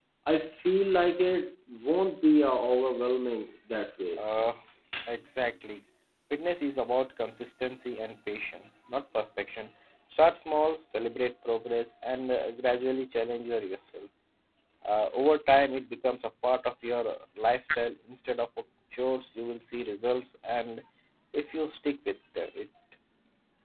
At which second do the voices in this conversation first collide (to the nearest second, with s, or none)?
none